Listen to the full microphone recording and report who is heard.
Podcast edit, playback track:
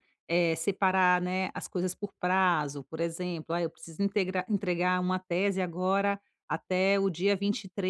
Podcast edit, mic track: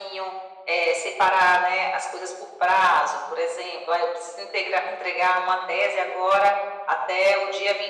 echo only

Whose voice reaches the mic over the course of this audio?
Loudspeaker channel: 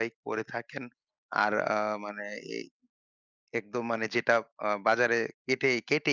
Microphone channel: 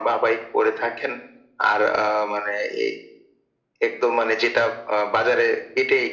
echo only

